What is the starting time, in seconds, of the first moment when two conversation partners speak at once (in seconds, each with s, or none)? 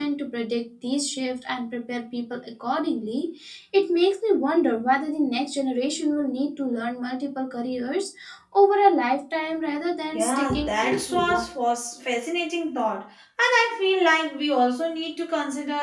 10.1 s